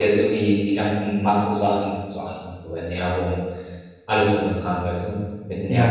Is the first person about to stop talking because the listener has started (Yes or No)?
Yes